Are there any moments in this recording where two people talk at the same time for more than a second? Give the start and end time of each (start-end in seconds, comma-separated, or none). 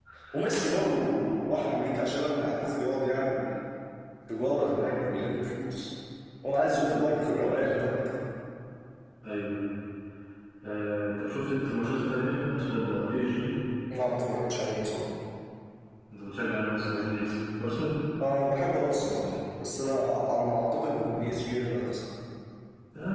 6.6-7.9